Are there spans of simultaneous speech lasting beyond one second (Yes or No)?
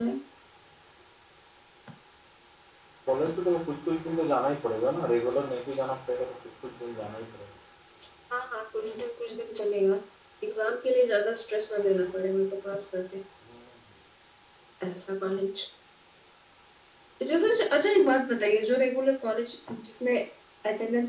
No